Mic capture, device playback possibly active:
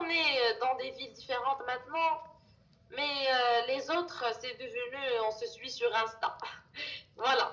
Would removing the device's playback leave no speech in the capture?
Yes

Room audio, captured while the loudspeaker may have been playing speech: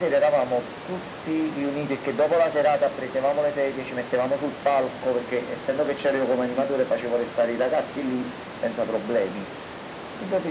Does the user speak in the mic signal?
No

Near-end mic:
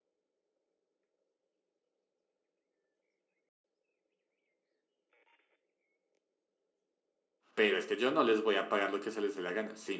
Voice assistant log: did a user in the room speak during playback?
Yes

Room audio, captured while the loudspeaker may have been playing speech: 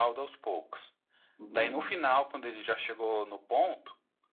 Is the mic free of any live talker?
No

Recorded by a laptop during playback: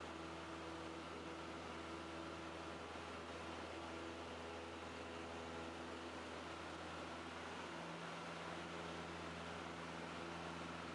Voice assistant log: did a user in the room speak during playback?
No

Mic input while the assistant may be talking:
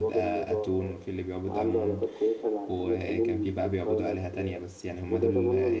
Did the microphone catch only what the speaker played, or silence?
No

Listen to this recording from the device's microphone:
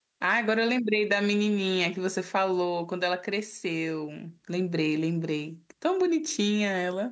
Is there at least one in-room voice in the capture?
Yes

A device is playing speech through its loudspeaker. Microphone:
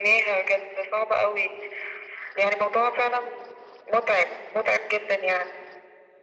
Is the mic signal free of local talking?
Yes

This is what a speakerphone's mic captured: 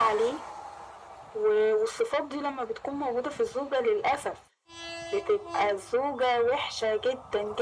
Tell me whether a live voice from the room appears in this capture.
No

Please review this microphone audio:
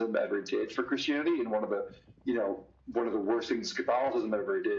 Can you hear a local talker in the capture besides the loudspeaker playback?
No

